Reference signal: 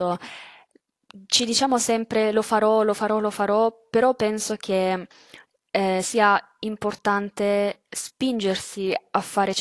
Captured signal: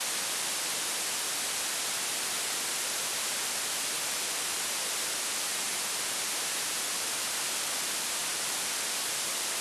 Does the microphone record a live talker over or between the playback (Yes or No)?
No